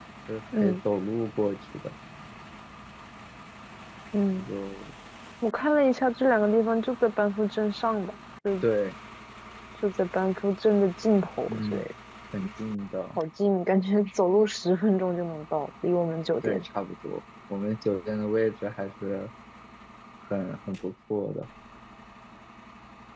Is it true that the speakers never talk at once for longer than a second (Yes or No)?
Yes